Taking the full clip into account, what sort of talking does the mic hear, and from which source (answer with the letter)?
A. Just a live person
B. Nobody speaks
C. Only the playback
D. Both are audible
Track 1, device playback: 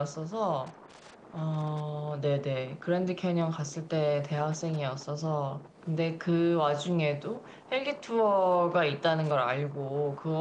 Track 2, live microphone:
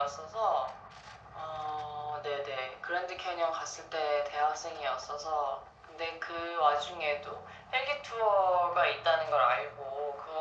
C